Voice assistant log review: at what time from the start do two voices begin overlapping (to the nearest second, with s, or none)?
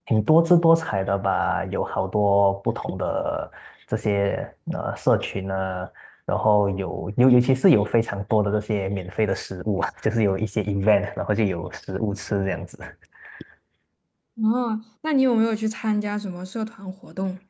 none